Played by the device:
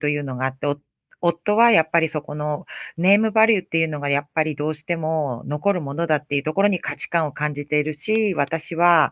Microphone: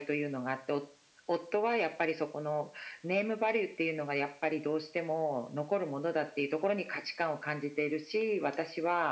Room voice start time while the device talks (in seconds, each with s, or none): none